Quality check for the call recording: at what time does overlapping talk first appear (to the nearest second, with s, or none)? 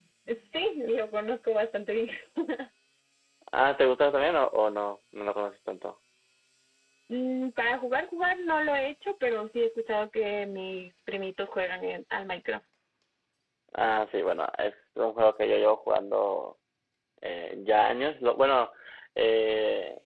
none